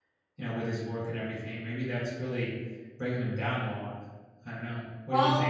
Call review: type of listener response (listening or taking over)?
taking over